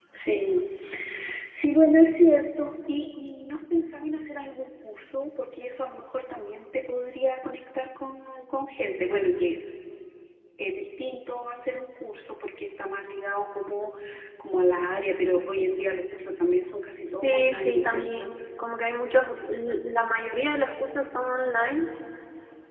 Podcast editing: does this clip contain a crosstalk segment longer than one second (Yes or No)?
Yes